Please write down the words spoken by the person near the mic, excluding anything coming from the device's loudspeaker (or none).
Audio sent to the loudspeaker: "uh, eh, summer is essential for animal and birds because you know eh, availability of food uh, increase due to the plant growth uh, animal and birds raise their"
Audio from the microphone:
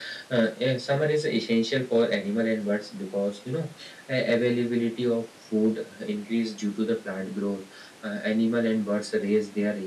none